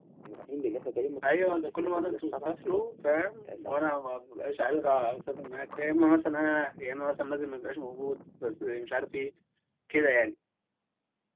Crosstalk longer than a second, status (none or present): present